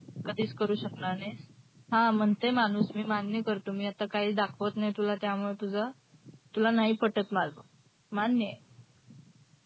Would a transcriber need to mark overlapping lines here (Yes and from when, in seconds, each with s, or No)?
No